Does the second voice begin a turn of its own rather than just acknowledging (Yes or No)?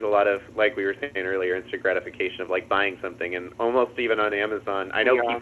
No